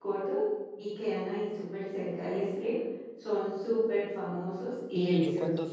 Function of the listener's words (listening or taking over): taking over